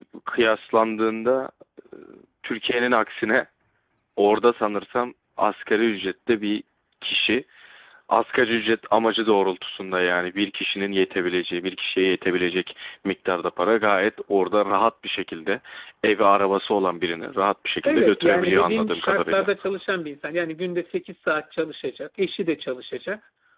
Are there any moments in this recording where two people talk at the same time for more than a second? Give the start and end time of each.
17.8-19.5

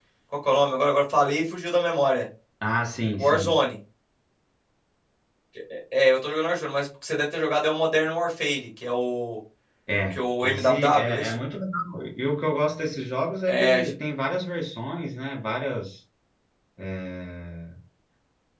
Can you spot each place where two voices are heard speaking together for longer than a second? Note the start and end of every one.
10.1-11.4

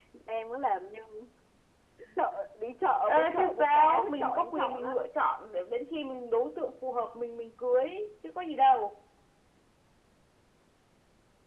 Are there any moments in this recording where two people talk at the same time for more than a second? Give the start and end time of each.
3.0-5.0

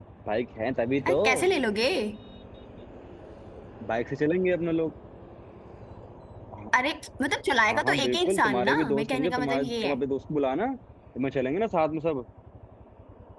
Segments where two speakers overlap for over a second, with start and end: 7.7-9.9

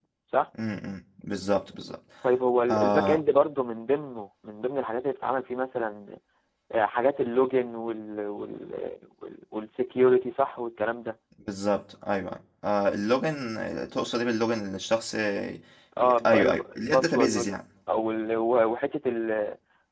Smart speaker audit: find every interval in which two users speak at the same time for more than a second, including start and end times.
16.2-17.6

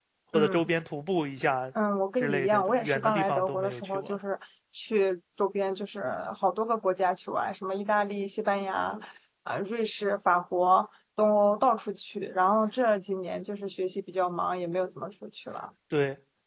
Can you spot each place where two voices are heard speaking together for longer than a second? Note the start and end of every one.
2.2-4.2

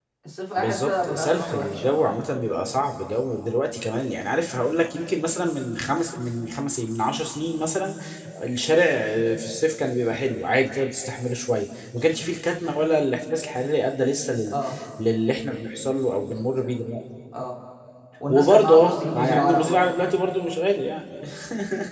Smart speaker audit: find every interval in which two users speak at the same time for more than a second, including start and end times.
0.6-2.0, 18.3-19.8

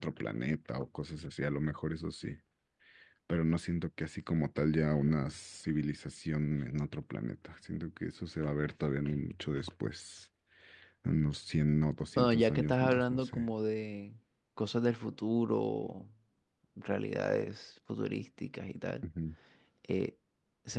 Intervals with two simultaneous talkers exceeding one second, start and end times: 12.2-13.5

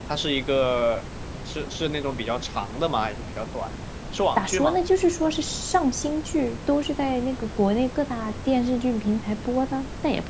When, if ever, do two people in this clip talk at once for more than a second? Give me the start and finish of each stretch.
none

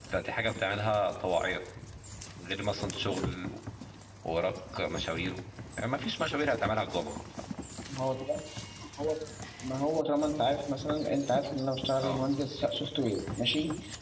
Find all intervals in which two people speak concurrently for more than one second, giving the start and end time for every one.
none

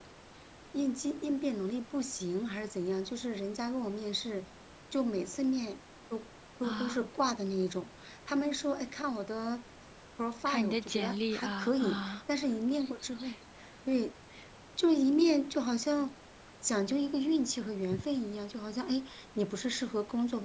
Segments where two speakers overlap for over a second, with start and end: 10.4-12.2

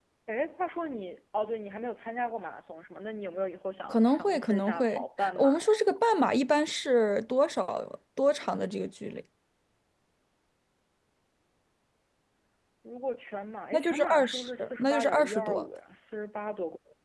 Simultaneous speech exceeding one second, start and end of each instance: 3.9-5.7, 13.7-15.7

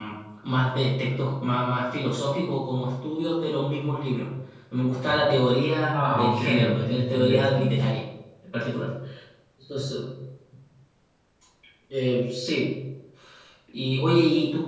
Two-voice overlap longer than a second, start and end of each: 5.9-7.9

